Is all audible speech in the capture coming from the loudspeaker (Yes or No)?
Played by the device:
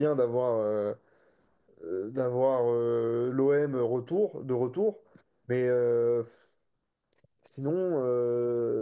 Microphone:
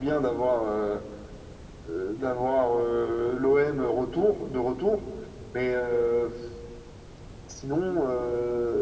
Yes